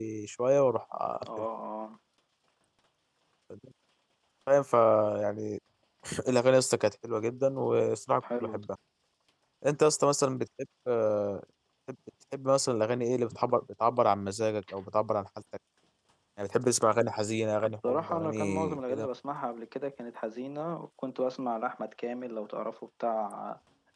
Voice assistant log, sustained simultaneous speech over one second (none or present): present